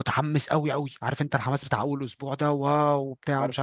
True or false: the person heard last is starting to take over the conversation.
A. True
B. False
B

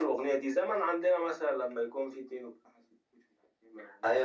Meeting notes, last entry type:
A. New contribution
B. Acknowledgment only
A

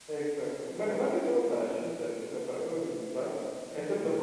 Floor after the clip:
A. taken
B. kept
B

